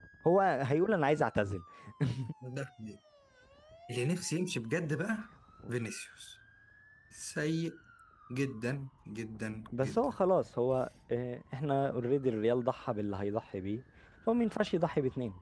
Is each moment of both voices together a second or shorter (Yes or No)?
Yes